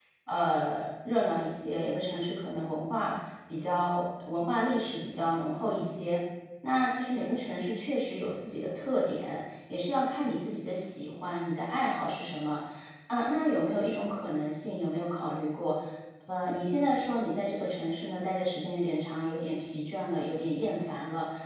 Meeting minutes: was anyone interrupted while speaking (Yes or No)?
No